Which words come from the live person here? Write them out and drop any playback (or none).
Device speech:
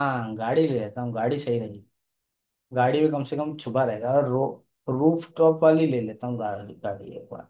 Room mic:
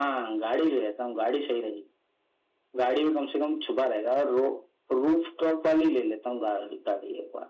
none